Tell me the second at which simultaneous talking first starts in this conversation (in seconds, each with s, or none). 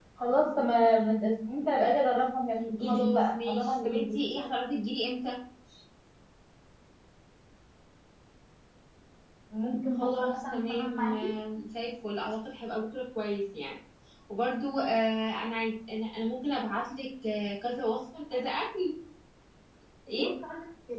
2.8 s